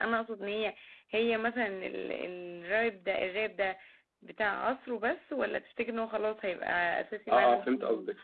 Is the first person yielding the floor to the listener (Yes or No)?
Yes